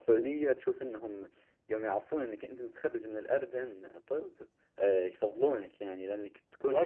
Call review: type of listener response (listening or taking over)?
listening